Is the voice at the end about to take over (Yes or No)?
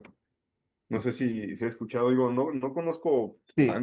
No